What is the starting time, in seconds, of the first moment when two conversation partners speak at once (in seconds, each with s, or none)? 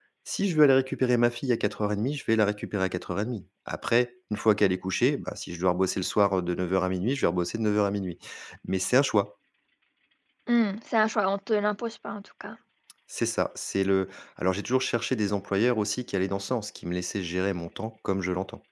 none